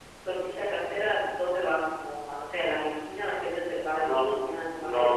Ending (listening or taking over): taking over